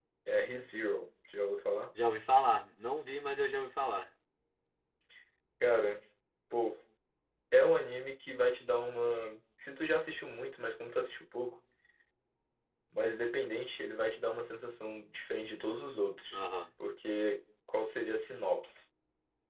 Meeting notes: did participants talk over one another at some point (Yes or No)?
No